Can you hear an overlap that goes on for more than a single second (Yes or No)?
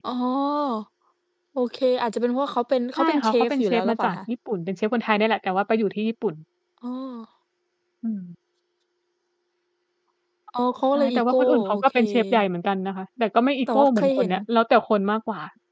Yes